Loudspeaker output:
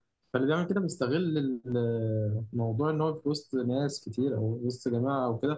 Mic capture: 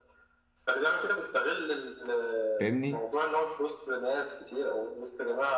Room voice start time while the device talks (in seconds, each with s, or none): 2.6 s